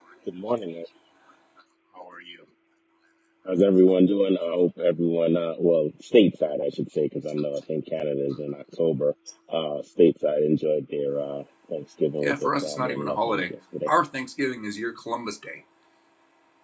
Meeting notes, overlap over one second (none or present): present